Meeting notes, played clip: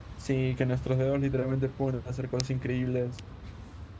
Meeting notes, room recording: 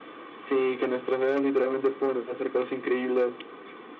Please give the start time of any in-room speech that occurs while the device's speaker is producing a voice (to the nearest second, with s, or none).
none